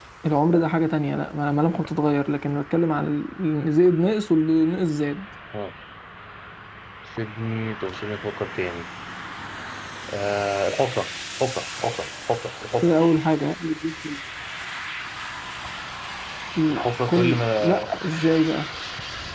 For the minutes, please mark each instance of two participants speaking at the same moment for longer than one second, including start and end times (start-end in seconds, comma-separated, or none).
16.7-17.9